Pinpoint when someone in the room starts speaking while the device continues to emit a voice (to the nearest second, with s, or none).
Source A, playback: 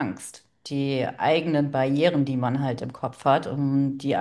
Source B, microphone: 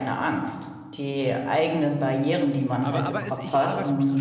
3 s